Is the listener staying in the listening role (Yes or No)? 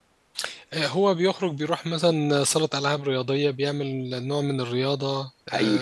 No